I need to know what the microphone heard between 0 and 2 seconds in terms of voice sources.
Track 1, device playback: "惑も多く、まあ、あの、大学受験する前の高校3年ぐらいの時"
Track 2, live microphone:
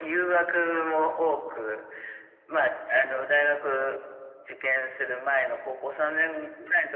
echo only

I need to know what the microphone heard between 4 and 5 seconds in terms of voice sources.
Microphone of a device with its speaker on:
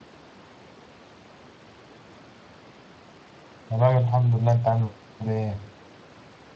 user only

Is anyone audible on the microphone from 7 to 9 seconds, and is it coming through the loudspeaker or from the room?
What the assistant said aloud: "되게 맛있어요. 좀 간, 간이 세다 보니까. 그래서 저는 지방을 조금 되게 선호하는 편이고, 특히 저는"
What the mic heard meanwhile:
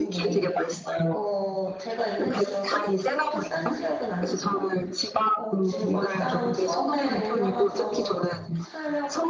both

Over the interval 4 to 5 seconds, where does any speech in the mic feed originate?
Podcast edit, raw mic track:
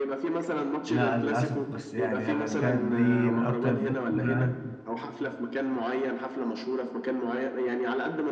both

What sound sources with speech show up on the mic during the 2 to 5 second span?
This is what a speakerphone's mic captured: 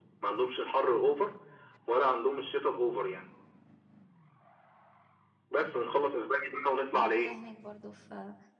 echo only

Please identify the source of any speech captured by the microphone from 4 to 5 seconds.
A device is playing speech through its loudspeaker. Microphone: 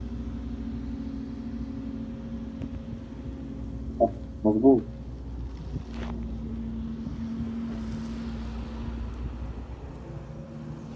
user only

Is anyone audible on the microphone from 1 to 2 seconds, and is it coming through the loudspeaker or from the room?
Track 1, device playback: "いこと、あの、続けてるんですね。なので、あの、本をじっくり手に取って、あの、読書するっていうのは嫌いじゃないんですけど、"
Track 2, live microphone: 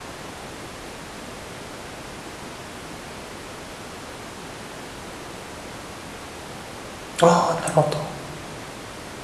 neither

